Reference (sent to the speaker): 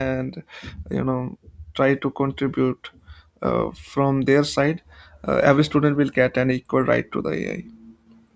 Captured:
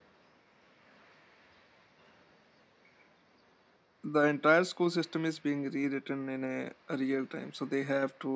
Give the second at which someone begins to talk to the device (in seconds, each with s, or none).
4.0 s